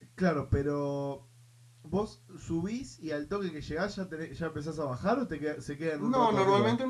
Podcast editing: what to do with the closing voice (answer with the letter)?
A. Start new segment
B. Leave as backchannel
A